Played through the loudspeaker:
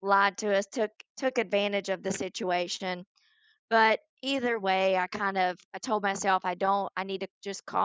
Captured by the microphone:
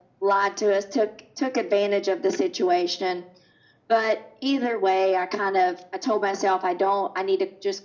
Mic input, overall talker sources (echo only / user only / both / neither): echo only